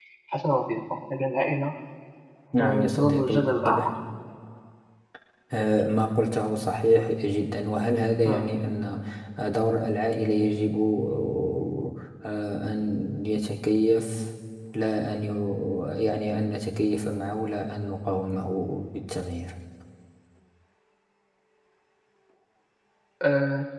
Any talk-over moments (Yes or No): Yes